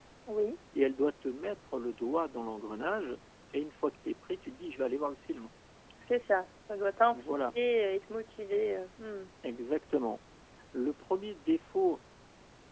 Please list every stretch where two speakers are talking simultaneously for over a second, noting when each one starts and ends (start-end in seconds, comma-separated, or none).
none